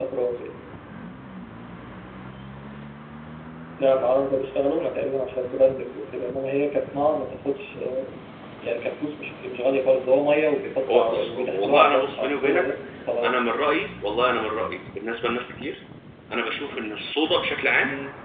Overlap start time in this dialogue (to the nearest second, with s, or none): 11 s